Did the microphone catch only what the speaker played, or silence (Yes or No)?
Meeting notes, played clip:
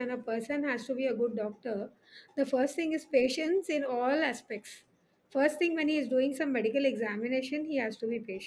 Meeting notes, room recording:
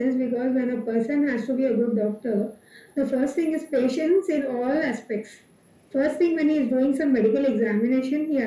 Yes